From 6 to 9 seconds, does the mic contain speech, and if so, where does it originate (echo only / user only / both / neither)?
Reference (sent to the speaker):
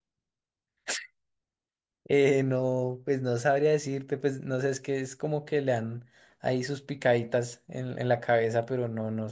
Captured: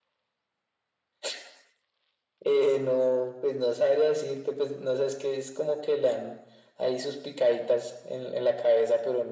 echo only